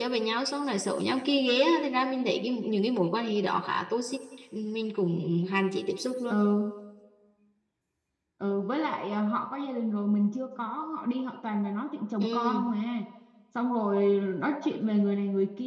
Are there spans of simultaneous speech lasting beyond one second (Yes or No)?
No